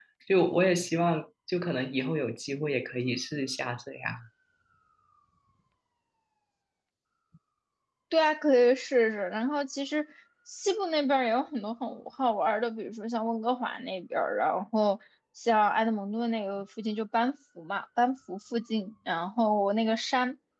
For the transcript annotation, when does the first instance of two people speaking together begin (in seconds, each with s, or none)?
none